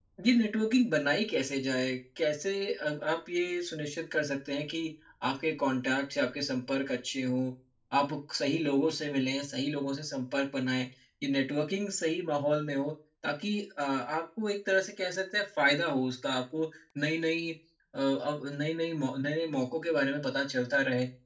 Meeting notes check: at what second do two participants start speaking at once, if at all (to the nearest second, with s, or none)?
none